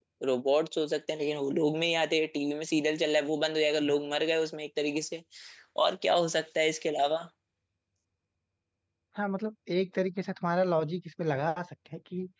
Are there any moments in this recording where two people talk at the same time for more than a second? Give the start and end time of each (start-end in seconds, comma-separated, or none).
none